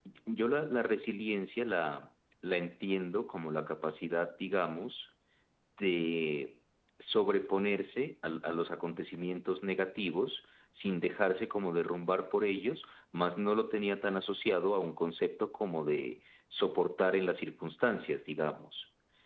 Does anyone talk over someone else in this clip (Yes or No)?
No